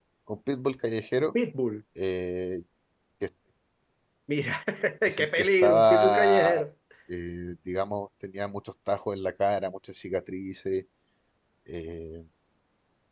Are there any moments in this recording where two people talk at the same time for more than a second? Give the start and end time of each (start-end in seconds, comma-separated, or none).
5.1-6.6